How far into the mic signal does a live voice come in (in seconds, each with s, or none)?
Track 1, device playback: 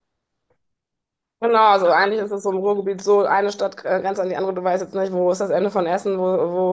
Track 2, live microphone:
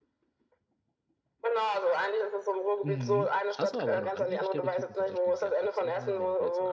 2.8 s